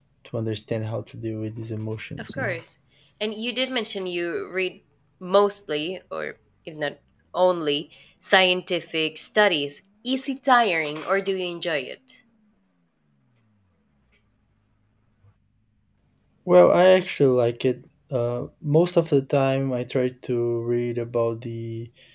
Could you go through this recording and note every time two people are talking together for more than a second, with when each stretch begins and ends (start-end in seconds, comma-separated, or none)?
none